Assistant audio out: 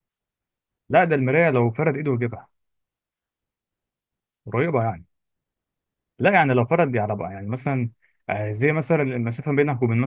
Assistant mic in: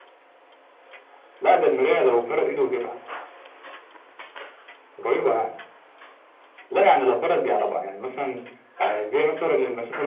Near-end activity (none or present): none